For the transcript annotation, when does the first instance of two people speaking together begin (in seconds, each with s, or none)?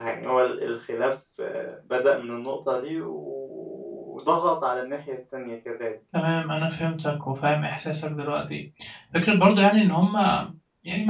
none